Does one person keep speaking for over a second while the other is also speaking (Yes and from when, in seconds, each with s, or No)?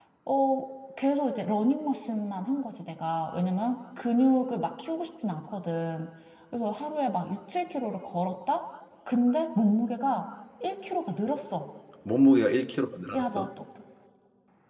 No